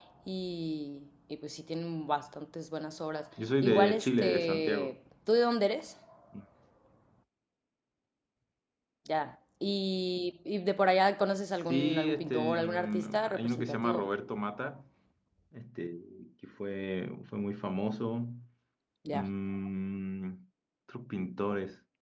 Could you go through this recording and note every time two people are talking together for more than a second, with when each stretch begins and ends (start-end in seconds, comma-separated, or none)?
3.6-4.9, 11.7-14.1